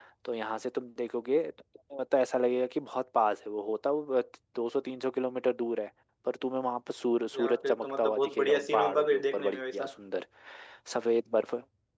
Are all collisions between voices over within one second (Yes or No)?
No